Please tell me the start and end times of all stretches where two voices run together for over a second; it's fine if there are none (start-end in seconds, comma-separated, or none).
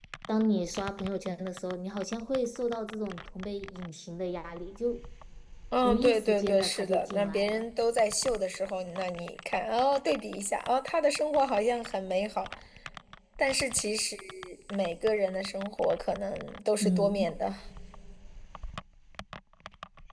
5.8-7.6